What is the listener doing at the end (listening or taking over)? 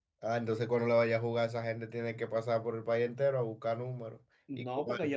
taking over